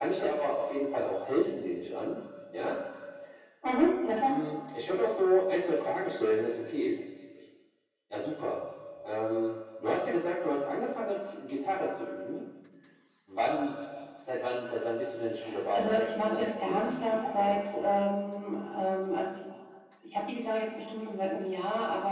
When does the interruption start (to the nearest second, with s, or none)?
16 s